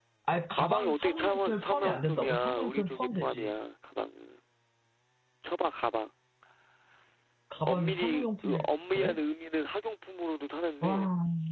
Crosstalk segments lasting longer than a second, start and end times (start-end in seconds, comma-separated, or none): 0.6-3.5, 7.7-9.2